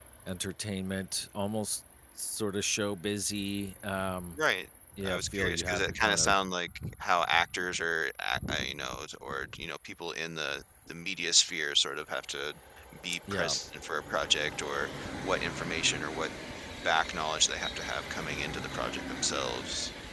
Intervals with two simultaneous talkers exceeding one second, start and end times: 5.1-6.3

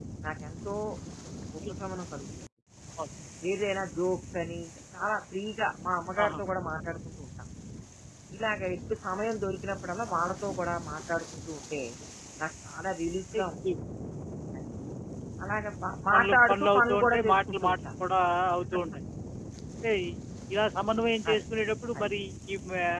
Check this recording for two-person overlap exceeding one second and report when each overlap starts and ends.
16.1-17.8

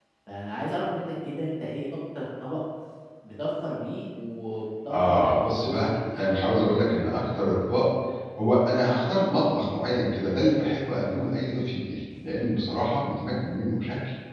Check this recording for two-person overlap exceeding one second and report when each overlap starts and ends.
4.9-6.3

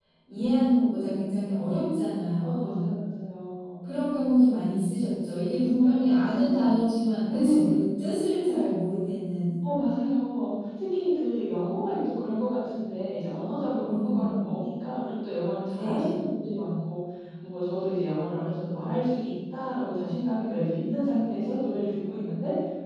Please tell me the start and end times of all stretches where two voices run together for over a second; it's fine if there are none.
5.5-6.7

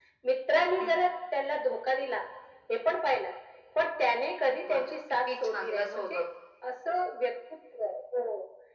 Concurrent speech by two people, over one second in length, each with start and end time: 4.7-6.2

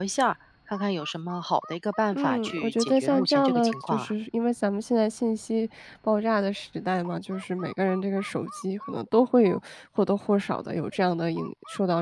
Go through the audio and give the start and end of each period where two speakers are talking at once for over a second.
2.1-4.1

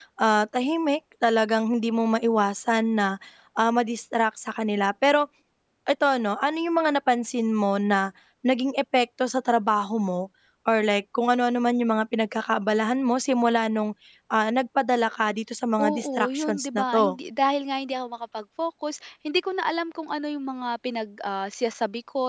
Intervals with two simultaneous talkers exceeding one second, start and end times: 15.8-17.2

